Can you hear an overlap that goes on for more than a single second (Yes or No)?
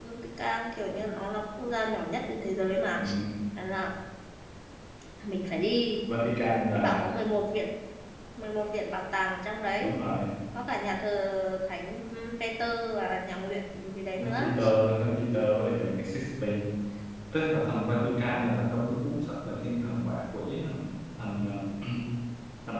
No